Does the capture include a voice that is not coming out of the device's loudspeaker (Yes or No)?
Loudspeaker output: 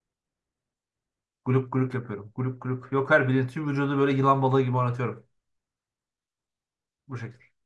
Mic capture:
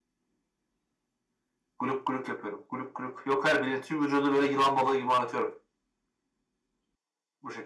No